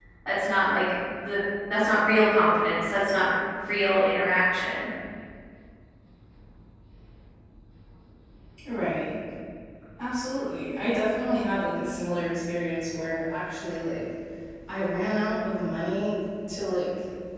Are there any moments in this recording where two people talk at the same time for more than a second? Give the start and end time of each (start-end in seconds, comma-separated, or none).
none